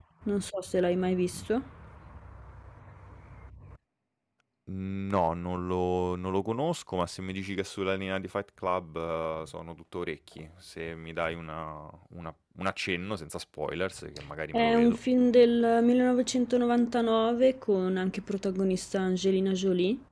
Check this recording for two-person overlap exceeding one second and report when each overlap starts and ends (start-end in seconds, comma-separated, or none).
none